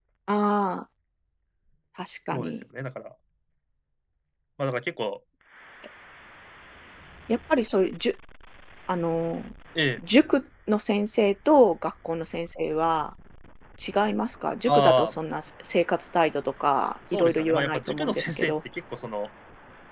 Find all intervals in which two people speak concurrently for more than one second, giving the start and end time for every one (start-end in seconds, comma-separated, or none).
17.1-18.5